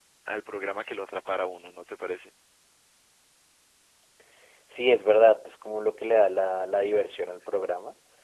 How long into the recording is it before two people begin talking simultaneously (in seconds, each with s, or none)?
none